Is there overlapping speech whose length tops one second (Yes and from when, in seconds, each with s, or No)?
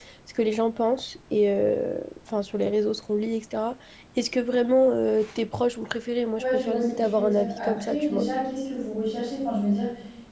Yes, from 6.4 s